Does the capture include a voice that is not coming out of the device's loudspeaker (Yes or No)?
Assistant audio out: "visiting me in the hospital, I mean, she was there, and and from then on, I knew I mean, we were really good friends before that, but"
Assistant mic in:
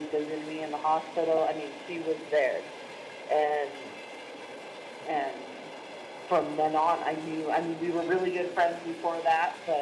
No